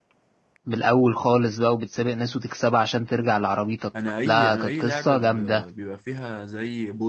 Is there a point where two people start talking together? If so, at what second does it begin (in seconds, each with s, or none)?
4.2 s